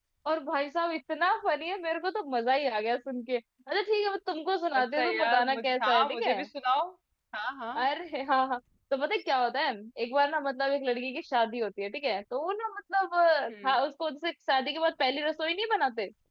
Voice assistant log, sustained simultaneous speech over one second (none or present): present